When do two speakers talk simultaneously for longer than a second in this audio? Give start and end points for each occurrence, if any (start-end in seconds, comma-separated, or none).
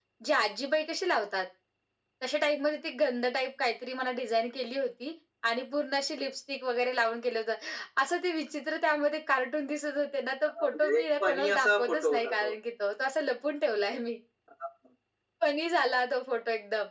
10.6-12.5